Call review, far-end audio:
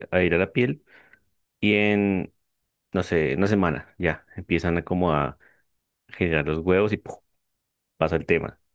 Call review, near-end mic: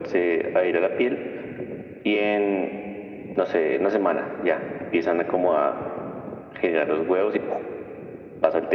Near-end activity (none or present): none